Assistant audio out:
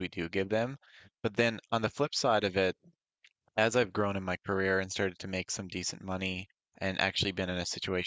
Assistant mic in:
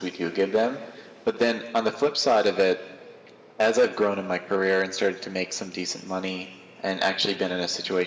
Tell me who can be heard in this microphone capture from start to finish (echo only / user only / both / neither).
echo only